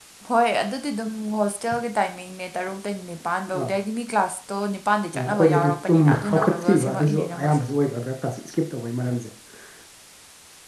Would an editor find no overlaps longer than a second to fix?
No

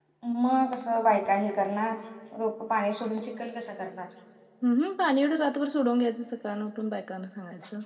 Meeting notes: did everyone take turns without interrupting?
Yes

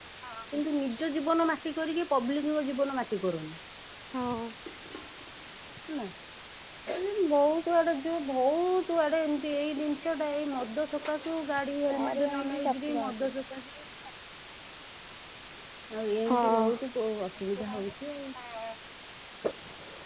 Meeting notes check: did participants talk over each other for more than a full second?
Yes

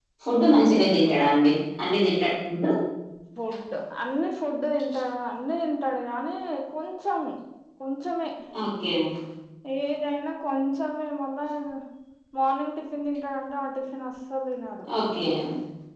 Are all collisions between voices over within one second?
Yes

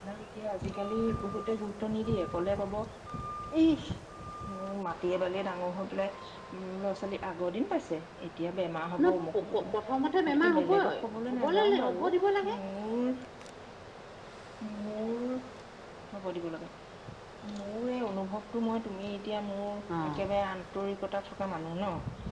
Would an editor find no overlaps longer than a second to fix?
No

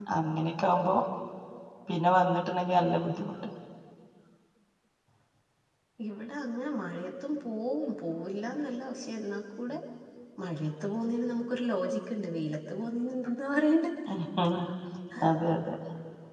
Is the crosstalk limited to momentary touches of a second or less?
Yes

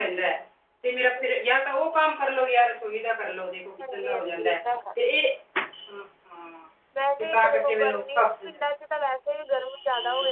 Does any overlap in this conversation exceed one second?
Yes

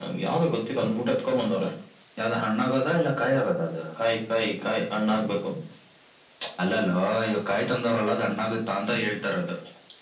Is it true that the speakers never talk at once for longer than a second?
Yes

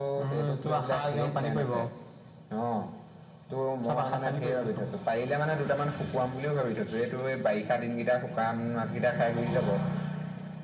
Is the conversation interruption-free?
No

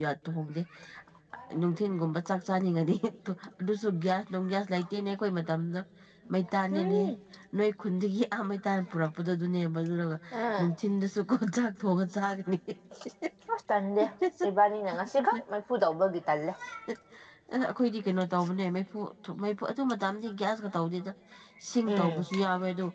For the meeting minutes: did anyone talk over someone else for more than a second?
No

